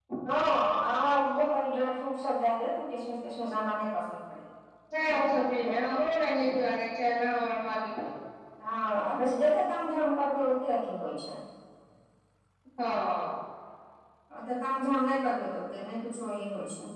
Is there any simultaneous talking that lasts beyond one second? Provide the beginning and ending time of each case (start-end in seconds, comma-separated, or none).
none